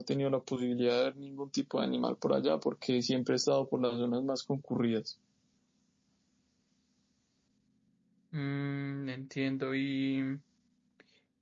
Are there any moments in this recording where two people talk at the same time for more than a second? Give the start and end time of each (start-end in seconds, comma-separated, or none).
none